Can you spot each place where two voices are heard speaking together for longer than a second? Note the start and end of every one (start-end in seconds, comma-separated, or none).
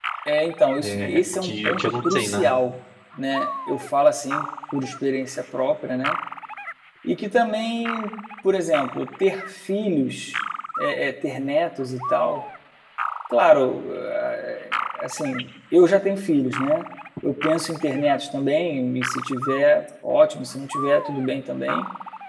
0.8-2.5